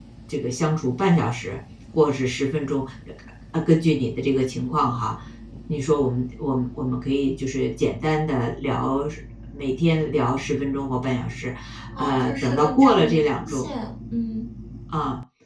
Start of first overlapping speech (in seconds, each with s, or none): 12.0 s